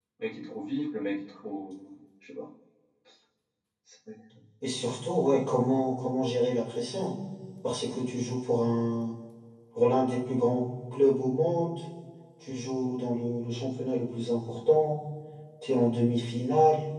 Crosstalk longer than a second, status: none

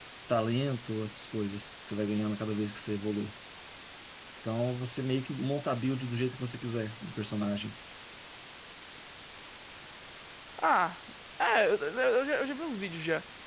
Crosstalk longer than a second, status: none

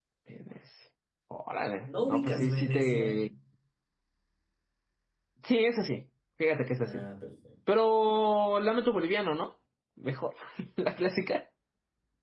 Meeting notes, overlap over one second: present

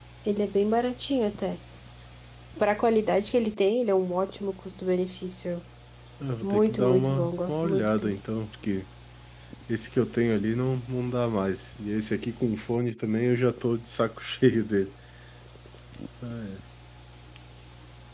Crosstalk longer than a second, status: present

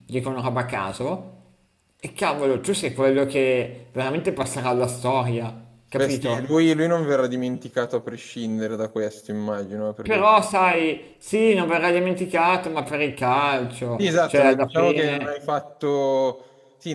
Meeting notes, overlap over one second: present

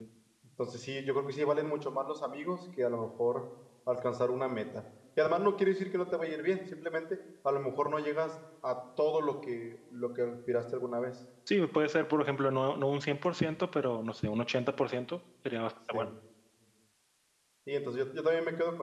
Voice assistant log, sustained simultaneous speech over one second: none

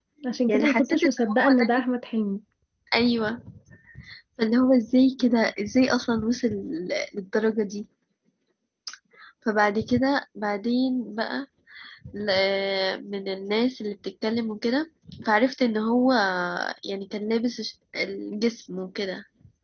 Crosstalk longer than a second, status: present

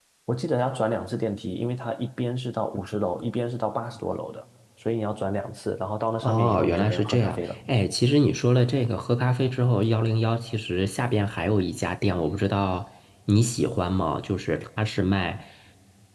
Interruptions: present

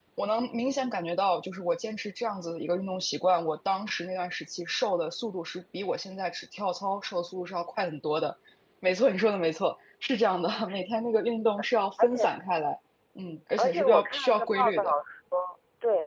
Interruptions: present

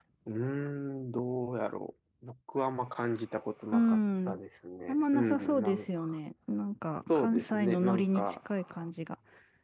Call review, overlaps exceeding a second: present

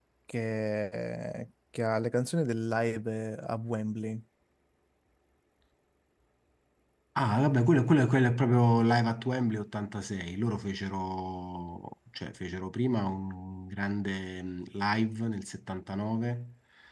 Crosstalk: none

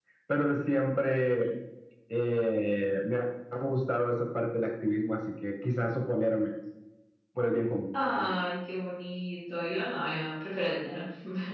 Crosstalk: none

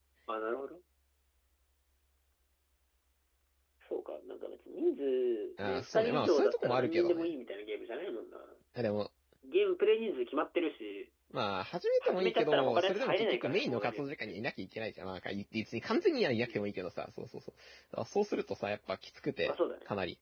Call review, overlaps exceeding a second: present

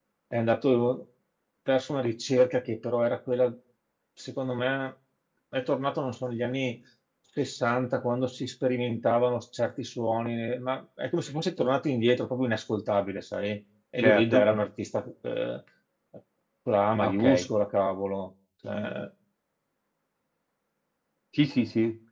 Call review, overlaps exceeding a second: none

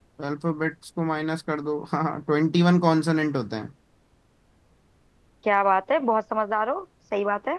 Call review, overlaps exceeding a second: none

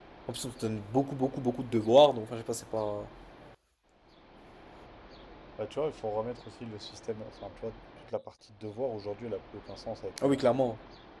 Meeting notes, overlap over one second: none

